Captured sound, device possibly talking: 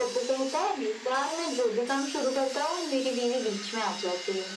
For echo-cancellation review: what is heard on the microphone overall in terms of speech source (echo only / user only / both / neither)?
echo only